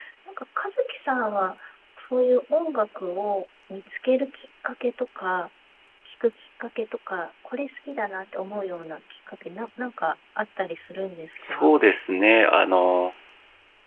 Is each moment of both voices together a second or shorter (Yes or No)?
Yes